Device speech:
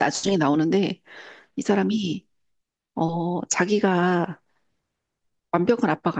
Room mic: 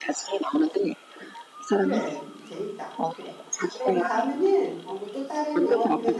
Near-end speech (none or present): present